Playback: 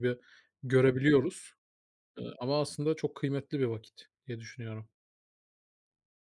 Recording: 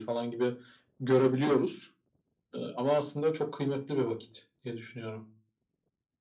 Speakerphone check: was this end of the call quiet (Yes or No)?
Yes